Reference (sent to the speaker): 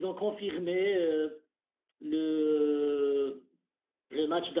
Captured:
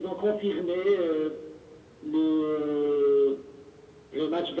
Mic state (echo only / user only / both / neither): echo only